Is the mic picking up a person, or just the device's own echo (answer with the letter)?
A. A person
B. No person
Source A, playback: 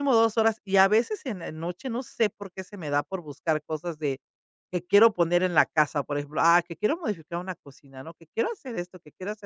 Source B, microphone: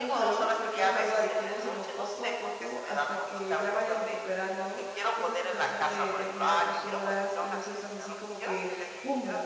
A